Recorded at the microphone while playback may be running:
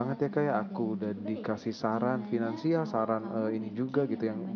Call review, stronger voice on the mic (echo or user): user